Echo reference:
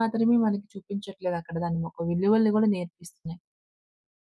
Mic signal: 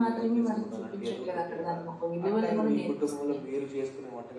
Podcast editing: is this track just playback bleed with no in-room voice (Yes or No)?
No